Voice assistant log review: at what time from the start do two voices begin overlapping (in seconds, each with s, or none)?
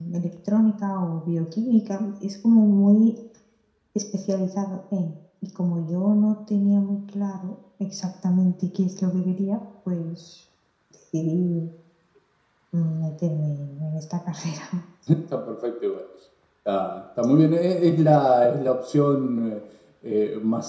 none